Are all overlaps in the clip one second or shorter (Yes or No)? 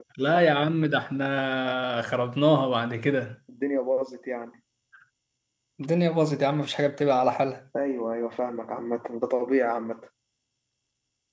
Yes